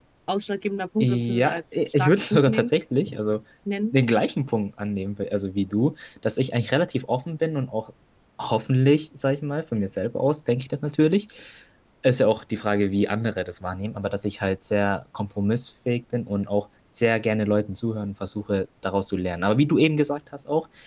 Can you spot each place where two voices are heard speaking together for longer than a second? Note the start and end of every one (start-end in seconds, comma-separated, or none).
1.0-2.7